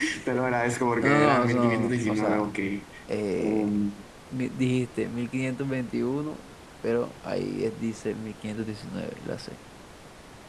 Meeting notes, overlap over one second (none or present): present